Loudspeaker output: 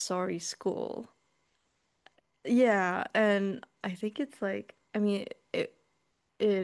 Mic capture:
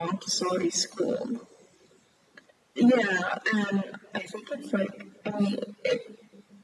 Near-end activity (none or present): none